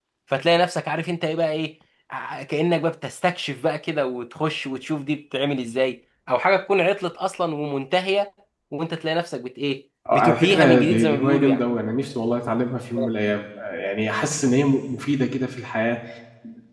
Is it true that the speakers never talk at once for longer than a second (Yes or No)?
No